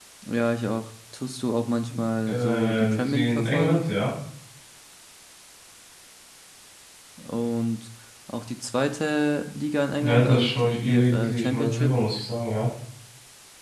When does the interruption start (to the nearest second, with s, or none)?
2 s